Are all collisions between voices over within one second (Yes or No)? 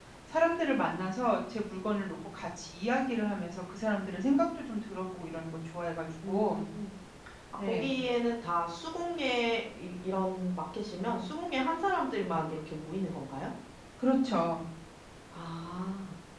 Yes